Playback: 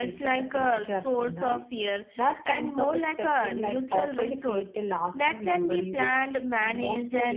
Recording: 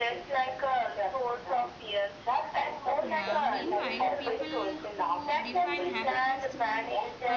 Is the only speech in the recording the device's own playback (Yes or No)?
No